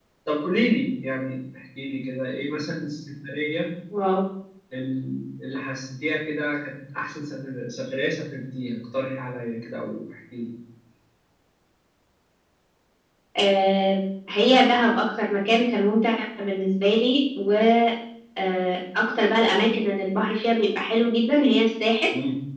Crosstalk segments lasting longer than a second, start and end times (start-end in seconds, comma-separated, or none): none